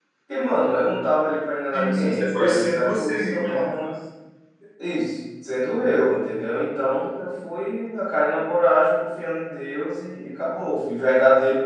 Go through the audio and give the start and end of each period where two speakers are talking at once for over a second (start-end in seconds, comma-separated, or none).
1.7-3.6